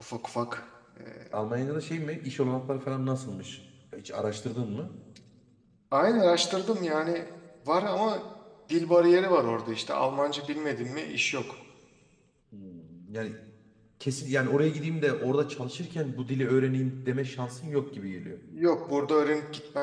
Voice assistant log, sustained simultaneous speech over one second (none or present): none